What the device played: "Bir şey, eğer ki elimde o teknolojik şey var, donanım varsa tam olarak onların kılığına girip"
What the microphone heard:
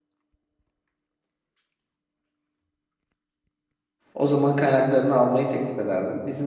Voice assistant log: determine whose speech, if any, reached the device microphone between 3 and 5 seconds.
user only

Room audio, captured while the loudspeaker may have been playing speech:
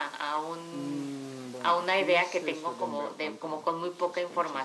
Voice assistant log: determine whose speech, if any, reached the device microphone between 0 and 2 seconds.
both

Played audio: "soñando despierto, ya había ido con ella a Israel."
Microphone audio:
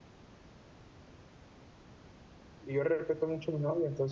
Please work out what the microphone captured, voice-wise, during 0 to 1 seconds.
neither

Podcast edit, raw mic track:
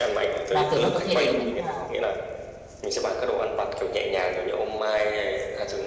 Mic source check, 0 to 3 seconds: both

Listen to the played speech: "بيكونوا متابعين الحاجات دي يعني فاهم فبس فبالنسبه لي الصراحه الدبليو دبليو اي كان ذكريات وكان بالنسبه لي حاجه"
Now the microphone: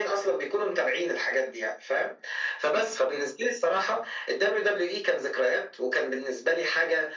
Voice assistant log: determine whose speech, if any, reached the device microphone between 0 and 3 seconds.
echo only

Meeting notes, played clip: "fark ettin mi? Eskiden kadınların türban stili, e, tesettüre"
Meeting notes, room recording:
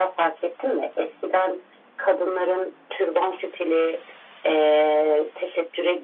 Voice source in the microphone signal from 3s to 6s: echo only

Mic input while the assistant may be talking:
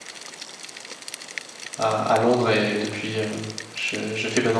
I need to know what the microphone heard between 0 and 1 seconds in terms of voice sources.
neither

